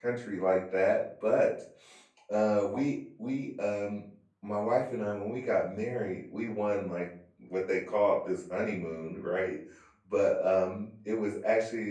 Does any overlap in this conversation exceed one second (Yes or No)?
No